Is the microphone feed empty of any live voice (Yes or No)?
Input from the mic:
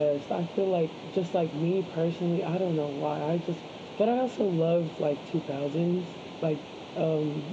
Yes